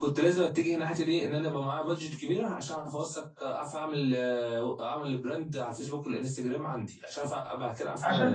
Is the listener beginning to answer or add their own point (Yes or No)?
Yes